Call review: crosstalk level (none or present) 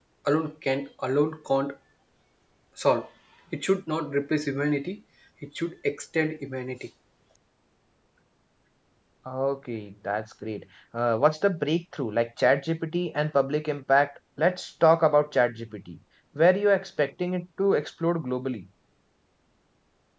none